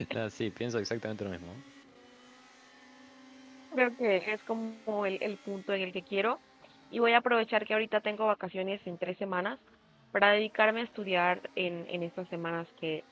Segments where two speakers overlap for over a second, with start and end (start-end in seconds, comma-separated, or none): none